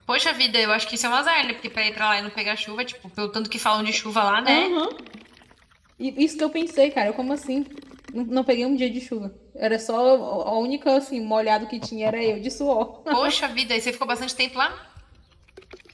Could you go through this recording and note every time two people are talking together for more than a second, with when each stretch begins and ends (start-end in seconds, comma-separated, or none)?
none